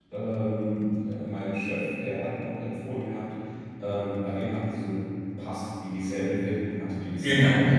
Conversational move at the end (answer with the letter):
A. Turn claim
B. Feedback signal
A